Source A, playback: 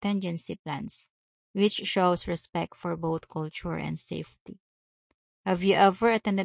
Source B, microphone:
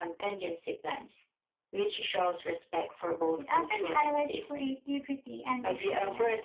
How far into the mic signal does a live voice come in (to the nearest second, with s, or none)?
3 s